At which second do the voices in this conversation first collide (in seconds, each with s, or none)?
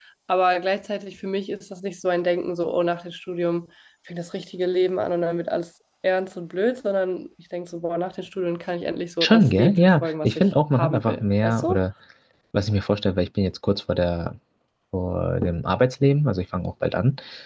9.2 s